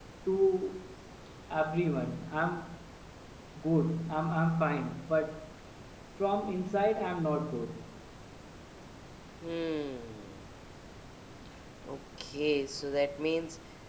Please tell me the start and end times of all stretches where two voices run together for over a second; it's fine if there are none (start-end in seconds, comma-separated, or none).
none